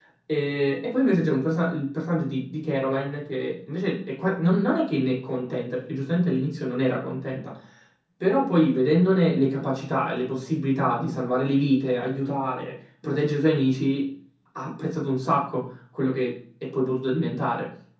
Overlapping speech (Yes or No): No